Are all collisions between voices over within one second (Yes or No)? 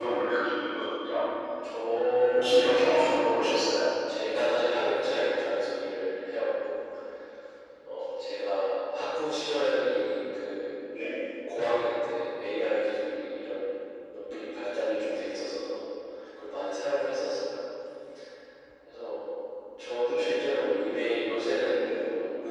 No